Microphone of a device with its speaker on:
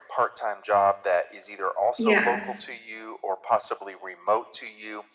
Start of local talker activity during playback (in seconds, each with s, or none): 2.0 s